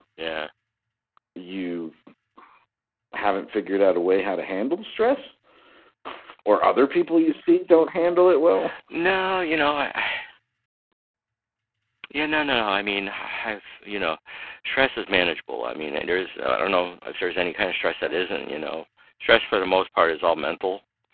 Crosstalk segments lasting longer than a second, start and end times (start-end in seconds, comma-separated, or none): none